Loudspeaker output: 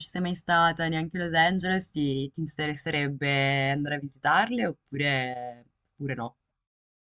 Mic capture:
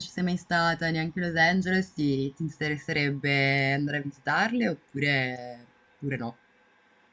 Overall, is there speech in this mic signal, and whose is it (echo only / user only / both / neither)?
echo only